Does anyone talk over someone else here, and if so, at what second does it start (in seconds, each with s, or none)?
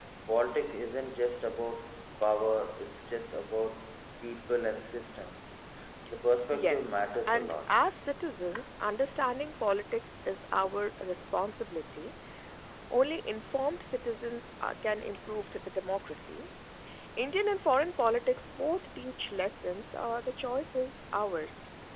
6.5 s